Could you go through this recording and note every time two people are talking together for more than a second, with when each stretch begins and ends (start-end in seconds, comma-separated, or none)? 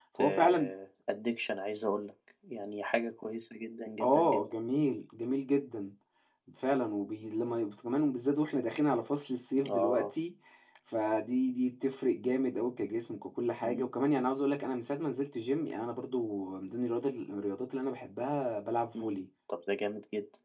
none